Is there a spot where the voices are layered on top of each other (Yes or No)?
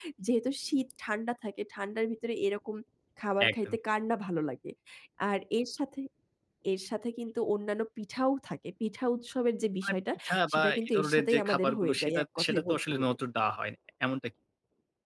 Yes